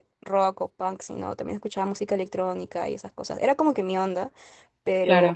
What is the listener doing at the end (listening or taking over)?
listening